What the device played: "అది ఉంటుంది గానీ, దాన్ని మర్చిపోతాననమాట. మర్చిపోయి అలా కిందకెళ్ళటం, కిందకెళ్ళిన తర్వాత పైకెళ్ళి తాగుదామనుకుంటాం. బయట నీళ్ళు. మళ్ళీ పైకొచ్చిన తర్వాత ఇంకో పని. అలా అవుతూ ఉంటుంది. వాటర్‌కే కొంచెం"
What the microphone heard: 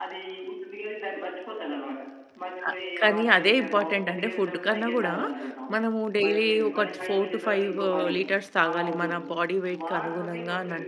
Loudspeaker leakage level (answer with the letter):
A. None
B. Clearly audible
B